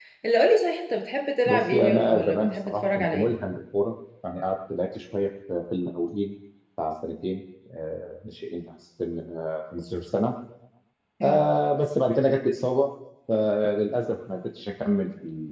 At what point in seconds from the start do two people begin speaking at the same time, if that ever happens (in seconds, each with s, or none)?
1.5 s